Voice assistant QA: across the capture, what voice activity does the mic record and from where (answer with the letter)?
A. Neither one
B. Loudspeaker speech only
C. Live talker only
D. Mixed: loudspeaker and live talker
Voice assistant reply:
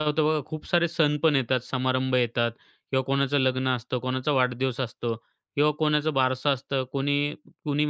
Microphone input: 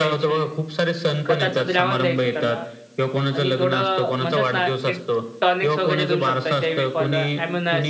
D